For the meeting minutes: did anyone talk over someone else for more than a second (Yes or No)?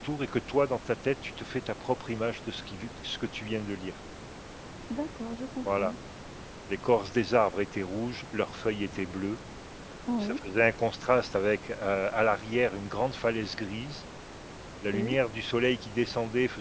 No